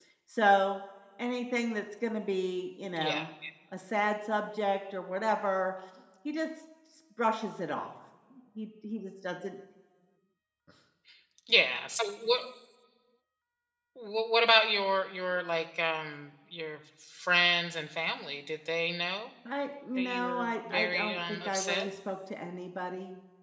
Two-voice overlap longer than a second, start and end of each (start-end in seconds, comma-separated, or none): 20.0-21.9